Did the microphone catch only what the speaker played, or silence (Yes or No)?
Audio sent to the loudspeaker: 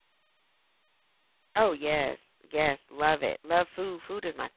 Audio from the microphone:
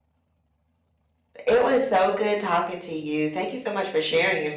No